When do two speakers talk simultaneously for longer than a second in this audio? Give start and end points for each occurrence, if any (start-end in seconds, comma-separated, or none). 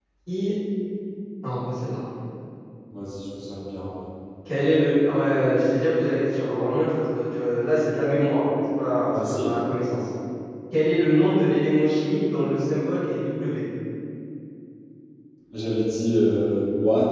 none